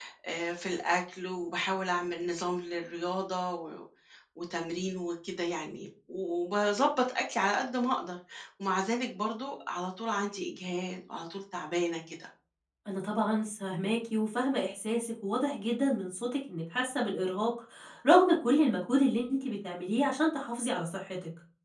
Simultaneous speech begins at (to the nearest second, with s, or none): none